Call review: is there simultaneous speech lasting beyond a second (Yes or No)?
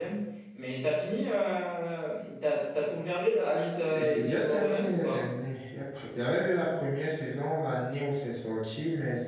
Yes